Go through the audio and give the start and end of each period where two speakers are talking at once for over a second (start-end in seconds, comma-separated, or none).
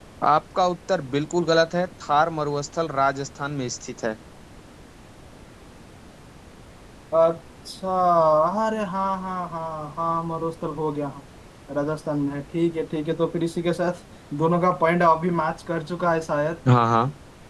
none